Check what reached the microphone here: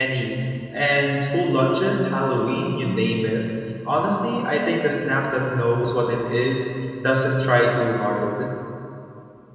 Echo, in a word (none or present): none